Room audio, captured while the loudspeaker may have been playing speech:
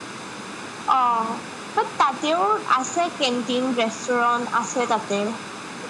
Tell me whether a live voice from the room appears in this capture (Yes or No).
No